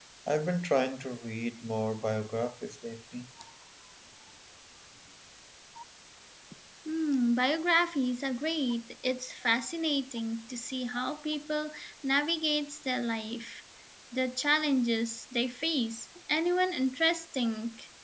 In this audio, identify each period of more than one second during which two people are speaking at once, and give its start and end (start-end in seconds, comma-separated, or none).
none